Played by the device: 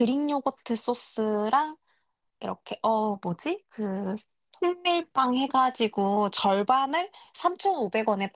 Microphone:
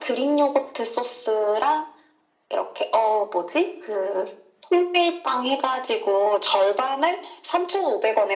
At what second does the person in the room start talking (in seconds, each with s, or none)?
none